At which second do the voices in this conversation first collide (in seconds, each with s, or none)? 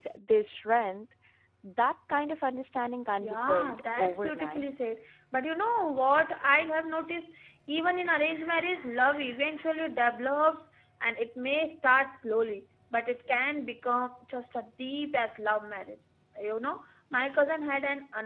3.2 s